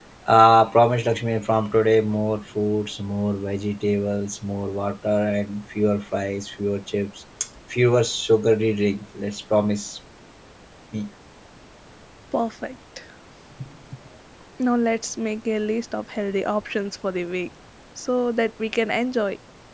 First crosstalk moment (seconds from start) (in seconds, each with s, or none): none